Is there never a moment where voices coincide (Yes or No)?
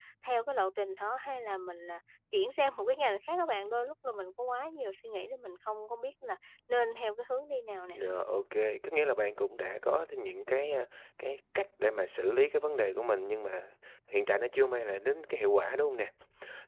Yes